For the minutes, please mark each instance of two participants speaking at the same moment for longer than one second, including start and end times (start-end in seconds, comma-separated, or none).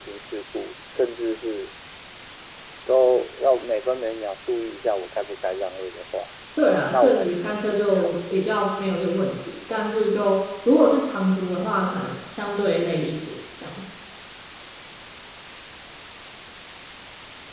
6.9-8.6